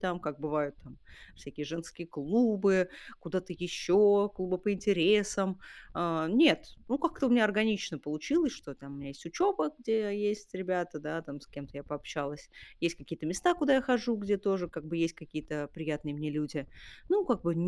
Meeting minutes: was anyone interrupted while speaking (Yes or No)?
No